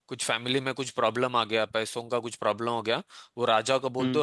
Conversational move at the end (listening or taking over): listening